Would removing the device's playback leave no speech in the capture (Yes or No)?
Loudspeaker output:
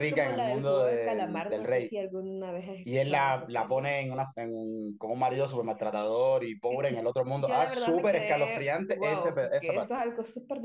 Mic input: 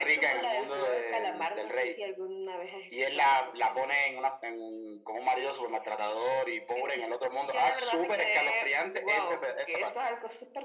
Yes